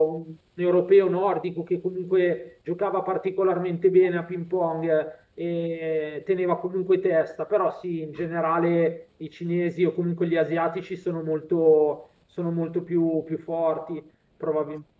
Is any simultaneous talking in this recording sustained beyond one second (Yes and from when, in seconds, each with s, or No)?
No